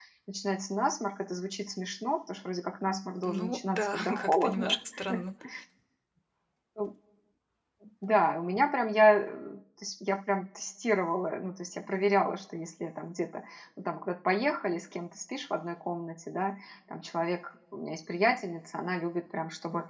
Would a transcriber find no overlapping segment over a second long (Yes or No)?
No